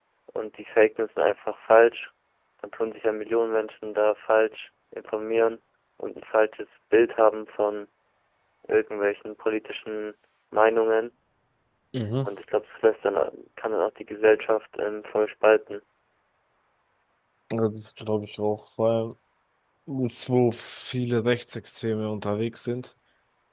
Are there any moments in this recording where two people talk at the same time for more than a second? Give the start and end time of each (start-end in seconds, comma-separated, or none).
none